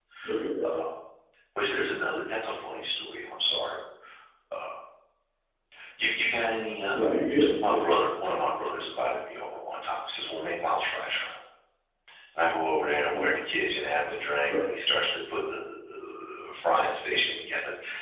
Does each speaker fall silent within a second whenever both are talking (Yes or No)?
Yes